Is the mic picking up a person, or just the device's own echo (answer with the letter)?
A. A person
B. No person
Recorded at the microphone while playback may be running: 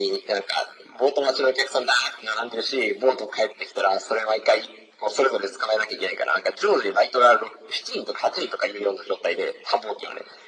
B